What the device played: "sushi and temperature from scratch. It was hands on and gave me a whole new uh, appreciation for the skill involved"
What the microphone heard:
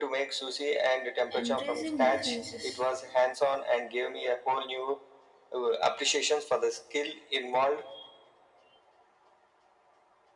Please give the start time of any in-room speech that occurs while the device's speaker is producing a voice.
1.4 s

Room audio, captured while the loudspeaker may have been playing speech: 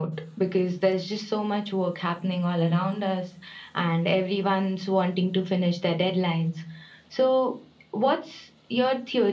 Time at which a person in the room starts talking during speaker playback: none

